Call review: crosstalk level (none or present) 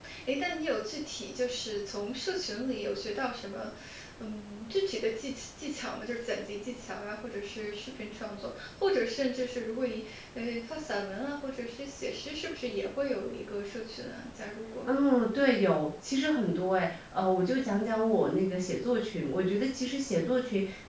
none